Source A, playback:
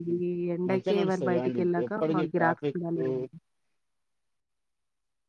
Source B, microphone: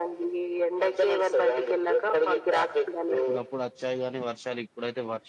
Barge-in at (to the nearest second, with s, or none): 3 s